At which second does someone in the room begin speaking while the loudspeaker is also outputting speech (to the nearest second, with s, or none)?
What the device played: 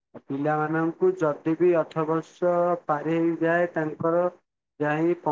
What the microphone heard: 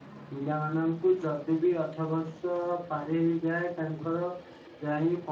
none